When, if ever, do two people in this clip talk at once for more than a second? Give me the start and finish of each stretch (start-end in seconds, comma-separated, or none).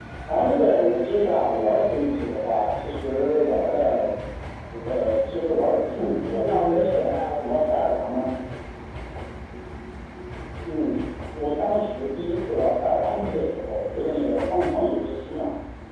6.0-7.6